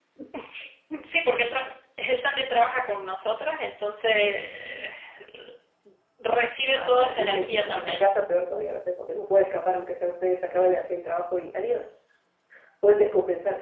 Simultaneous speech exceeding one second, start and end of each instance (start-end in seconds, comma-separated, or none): 6.7-8.0